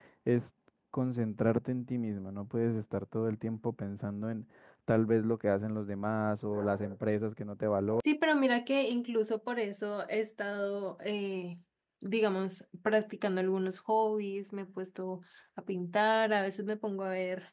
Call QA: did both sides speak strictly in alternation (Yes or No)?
Yes